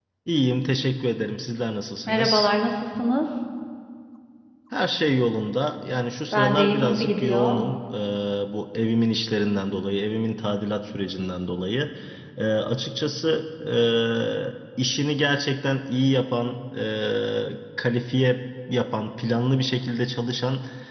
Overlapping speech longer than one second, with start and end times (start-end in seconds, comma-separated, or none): 6.3-7.6